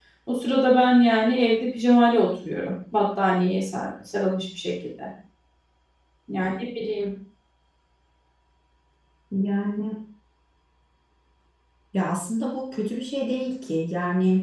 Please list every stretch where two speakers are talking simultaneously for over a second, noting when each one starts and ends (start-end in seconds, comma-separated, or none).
none